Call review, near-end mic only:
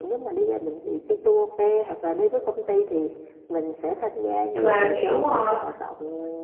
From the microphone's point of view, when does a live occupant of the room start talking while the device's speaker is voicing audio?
4.5 s

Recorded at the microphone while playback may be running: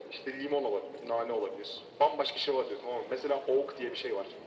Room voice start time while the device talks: none

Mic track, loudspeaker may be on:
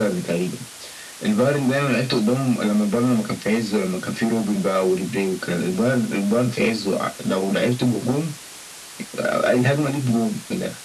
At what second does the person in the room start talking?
none

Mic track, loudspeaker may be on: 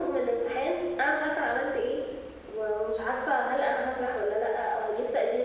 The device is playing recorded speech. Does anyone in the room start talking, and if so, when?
none

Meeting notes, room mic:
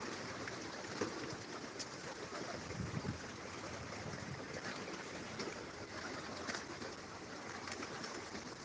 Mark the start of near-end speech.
none

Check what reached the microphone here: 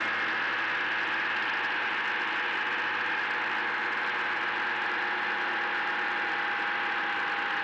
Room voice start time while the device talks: none

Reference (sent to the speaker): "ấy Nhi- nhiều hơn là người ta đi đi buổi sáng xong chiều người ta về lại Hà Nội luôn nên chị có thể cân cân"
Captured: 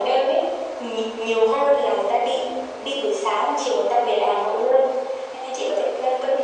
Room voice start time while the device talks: none

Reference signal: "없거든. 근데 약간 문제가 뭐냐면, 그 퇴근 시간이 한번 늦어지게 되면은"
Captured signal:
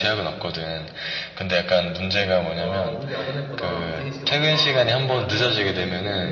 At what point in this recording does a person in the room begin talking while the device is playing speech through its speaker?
2.6 s

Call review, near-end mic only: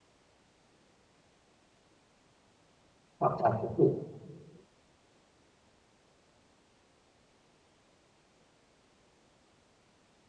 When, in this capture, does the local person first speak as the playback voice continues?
3.2 s

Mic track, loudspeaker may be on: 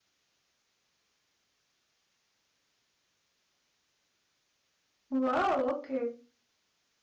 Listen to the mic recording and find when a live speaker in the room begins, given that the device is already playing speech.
5.1 s

